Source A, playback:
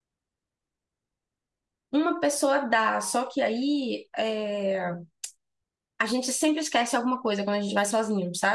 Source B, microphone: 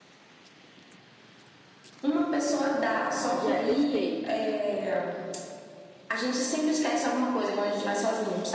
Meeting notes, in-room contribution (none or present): present